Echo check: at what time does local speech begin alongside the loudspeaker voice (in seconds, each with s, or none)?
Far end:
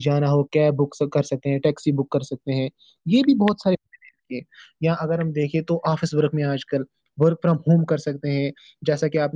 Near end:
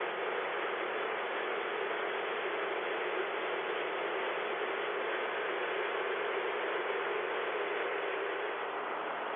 none